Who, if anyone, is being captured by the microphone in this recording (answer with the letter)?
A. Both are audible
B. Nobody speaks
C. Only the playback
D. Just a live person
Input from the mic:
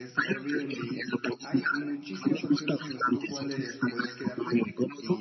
A